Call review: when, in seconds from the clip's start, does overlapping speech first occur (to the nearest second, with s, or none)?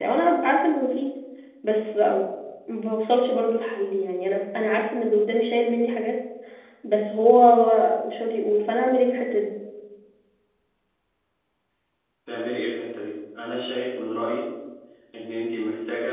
none